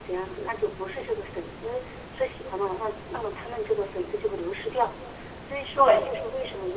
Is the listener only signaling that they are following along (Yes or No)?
Yes